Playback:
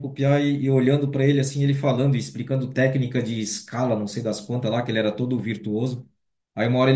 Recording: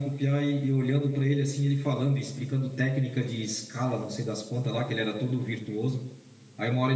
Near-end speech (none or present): none